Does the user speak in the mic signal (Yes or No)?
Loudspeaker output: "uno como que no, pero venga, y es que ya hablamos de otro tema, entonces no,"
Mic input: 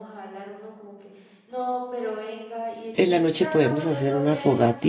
Yes